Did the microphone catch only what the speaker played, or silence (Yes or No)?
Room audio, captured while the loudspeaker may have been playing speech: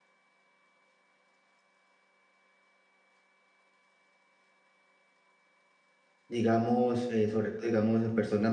No